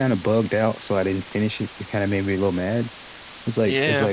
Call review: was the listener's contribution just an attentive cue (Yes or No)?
Yes